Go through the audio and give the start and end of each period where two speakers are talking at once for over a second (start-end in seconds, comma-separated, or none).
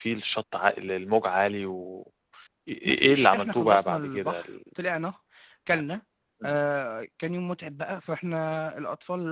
2.9-4.5